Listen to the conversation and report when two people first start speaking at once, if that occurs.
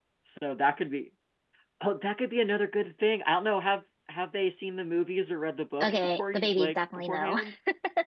5.8 s

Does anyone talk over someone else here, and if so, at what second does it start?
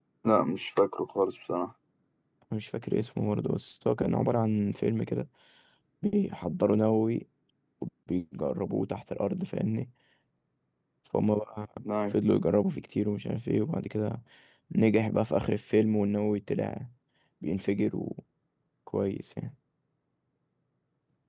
none

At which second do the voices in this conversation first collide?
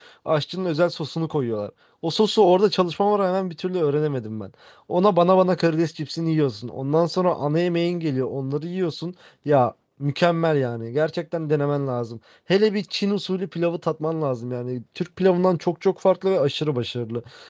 none

